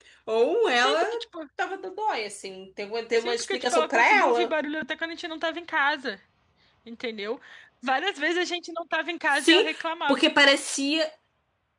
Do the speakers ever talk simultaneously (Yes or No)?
Yes